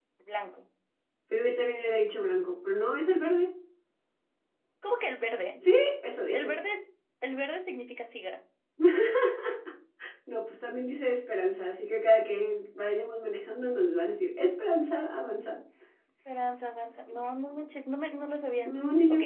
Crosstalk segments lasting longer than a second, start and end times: none

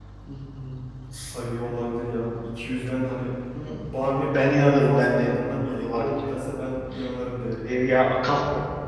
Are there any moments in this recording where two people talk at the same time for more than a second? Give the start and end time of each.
4.2-6.3

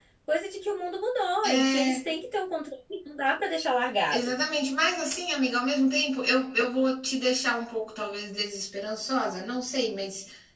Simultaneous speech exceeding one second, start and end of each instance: none

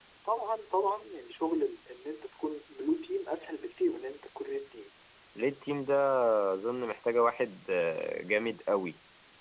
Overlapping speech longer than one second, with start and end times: none

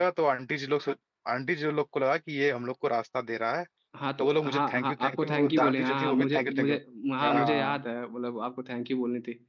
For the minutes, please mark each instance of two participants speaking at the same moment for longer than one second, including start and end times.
4.2-6.8

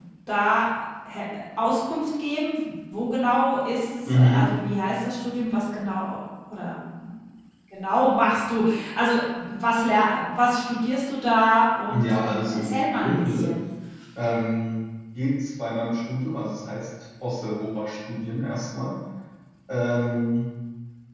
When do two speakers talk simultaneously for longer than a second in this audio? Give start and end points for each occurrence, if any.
11.9-13.5

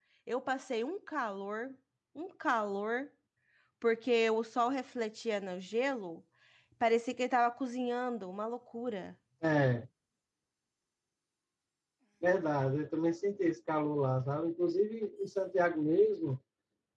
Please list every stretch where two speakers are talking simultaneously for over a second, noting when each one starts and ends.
none

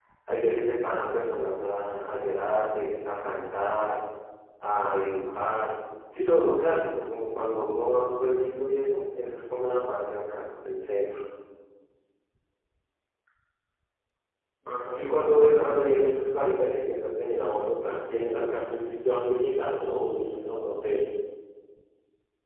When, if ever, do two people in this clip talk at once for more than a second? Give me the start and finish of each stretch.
14.9-16.6

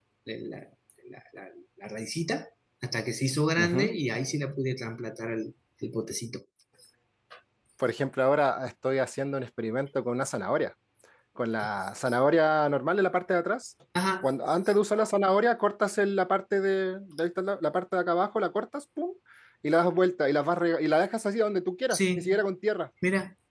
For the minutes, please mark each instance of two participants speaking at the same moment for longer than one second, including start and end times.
none

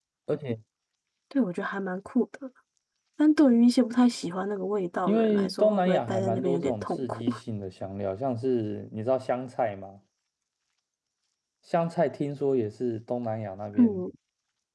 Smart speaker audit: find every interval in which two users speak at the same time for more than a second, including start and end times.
5.1-7.2

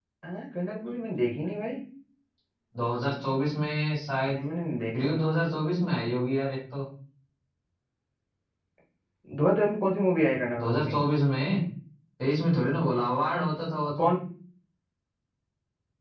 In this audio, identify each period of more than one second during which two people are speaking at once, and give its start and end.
none

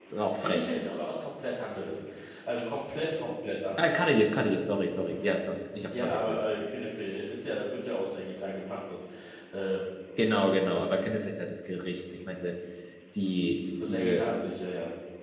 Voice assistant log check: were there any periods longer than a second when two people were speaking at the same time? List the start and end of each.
none

